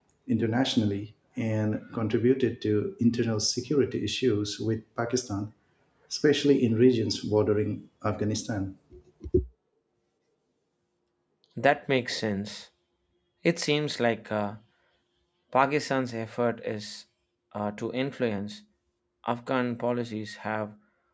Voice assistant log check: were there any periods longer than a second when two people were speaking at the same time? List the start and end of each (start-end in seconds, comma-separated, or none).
none